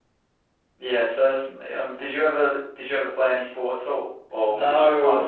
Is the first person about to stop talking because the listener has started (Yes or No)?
Yes